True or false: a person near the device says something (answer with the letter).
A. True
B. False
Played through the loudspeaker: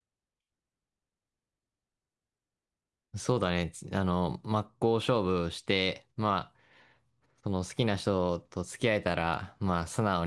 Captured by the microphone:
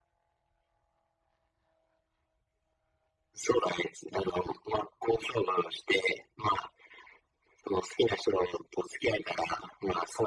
B